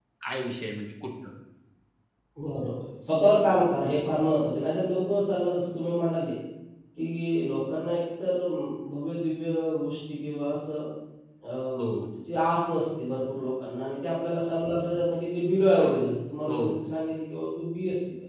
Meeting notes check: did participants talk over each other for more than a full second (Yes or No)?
No